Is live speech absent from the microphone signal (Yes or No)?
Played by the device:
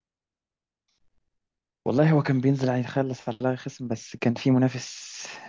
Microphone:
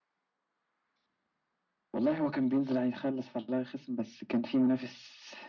Yes